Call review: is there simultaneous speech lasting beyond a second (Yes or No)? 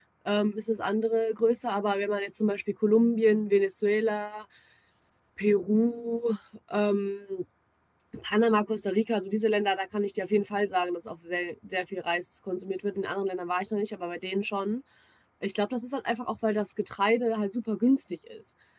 No